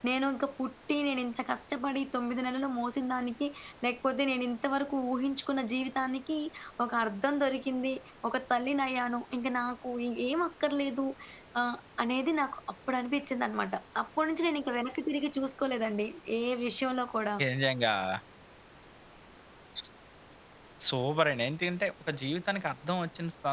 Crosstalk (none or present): none